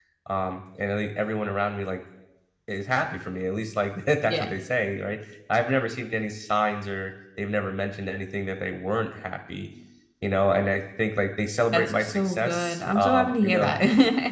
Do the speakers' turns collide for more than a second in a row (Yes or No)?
Yes